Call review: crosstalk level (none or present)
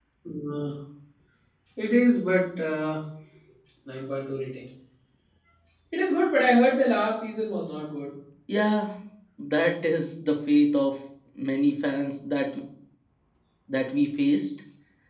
none